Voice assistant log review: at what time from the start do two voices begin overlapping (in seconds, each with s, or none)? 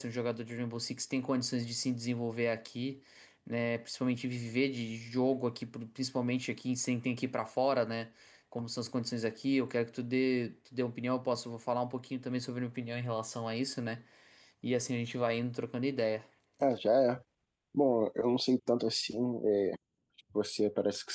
none